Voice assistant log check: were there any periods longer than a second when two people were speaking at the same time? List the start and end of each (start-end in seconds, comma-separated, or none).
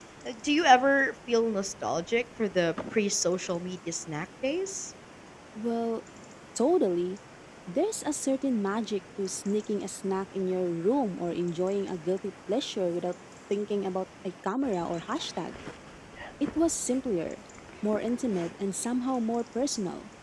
none